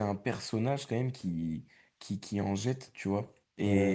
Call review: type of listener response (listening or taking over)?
listening